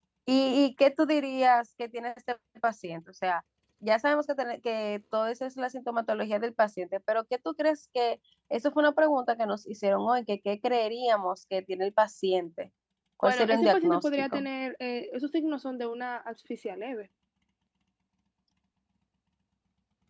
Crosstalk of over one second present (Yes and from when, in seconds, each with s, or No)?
Yes, from 13.2 s